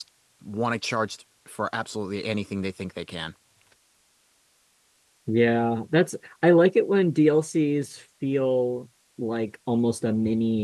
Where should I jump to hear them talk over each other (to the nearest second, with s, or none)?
none